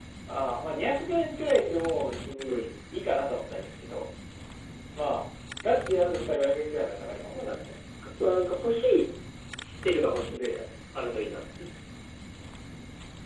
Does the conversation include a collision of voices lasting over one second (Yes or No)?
No